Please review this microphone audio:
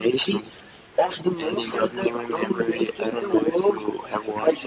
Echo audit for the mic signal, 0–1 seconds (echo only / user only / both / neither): echo only